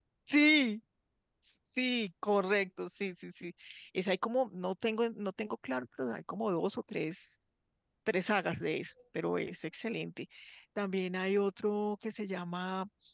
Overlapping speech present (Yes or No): No